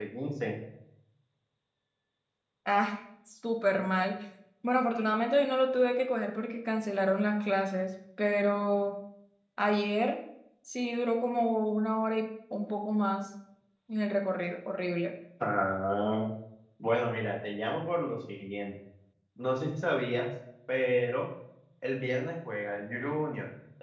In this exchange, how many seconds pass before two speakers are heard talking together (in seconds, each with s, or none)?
none